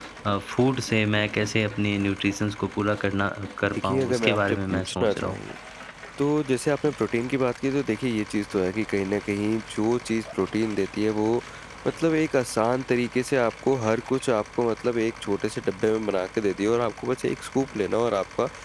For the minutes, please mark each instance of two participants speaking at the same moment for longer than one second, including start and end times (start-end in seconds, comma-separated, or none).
3.7-5.4